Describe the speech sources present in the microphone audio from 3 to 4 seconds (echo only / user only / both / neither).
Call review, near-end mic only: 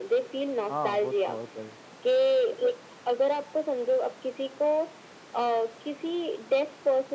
echo only